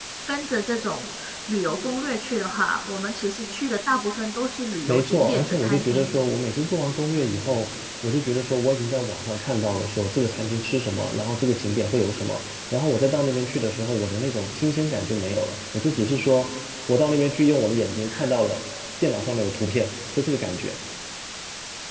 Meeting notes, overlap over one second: present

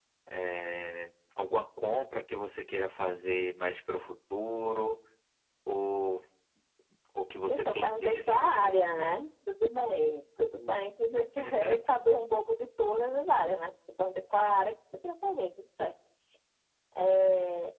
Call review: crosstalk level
present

